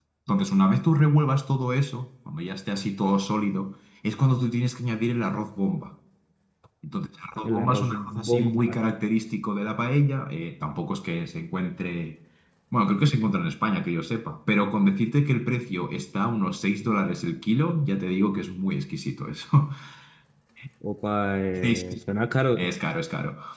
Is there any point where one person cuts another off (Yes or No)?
Yes